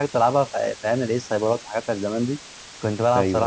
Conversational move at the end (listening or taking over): listening